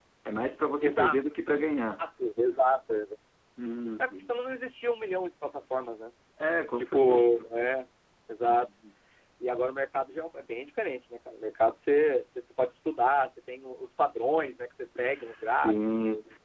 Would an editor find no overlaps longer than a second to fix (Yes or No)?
No